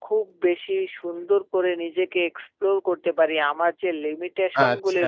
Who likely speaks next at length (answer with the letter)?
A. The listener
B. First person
B